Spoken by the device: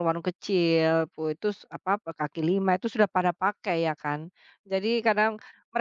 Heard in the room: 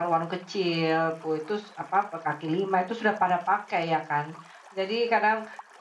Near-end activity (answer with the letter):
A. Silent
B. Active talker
A